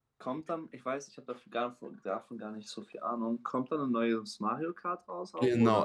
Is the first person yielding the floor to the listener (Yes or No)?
Yes